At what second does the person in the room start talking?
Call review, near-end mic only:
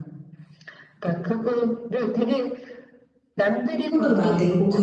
4 s

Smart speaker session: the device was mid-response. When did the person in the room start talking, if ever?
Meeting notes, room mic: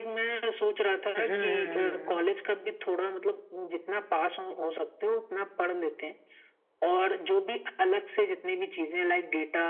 1 s

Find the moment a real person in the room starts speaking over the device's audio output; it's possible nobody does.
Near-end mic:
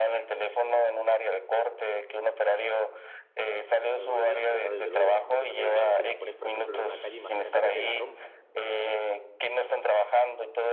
4 s

